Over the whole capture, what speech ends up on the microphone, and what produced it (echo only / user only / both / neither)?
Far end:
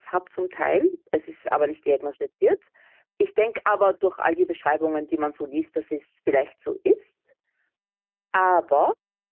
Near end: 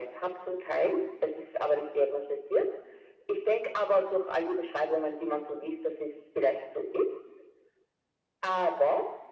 echo only